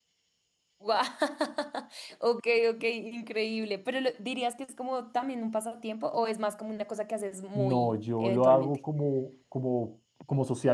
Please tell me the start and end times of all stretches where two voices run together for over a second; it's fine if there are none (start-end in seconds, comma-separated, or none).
7.5-8.8